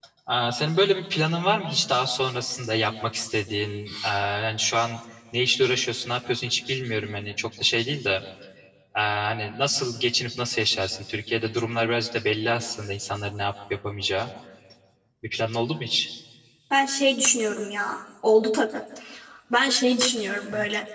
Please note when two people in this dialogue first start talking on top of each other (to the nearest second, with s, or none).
none